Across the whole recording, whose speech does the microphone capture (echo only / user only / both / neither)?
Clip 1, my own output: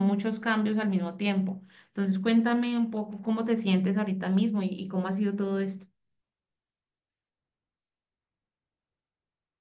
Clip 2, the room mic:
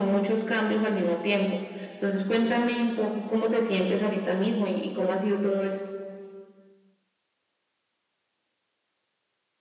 echo only